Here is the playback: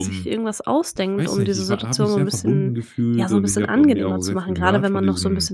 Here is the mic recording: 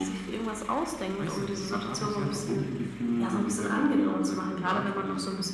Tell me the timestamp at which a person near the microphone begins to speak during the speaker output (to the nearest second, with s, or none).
none